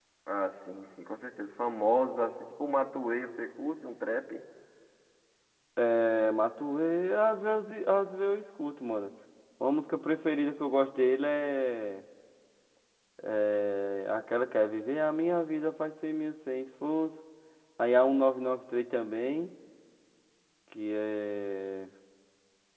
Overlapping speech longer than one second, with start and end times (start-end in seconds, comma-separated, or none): none